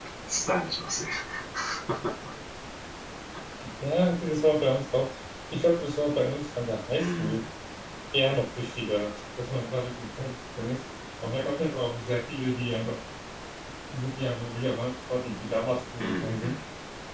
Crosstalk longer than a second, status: none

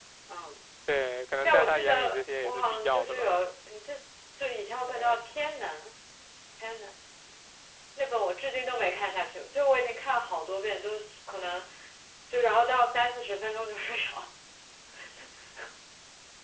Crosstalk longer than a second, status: present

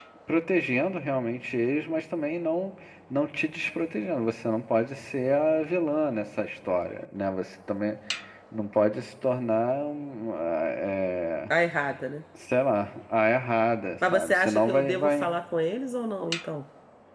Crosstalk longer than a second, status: present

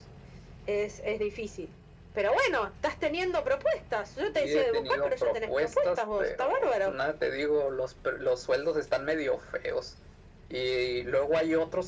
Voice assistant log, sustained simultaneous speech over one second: present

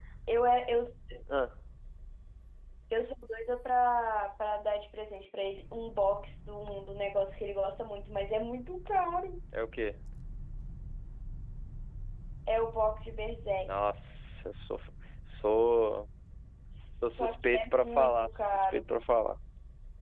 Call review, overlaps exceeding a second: present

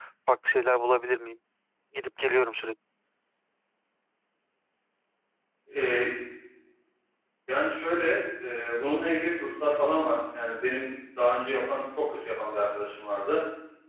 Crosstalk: none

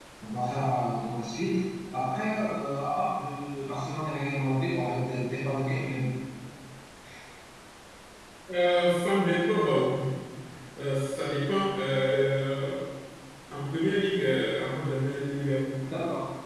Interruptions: none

